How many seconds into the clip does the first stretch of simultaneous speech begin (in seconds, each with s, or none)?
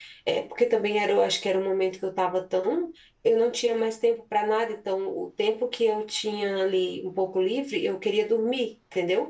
none